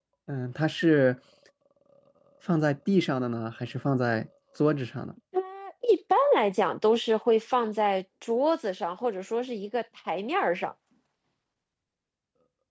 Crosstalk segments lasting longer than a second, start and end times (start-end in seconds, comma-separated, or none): none